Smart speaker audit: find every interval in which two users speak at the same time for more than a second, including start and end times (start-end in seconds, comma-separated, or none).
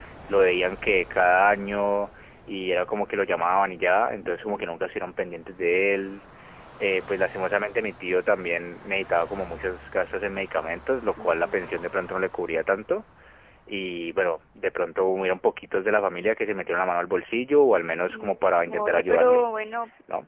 17.9-19.4